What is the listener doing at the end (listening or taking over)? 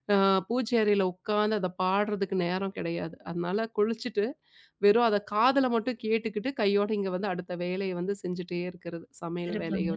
taking over